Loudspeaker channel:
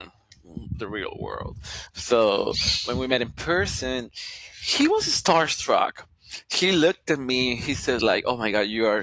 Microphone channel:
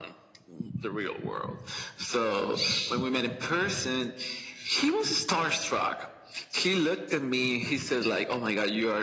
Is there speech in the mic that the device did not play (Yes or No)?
No